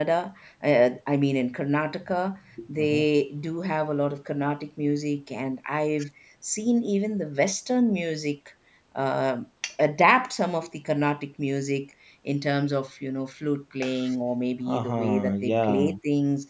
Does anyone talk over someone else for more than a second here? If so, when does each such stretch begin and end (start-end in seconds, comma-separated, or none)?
14.7-15.9